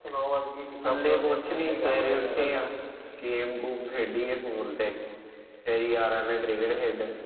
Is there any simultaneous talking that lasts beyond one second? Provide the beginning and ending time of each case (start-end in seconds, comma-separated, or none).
0.8-2.6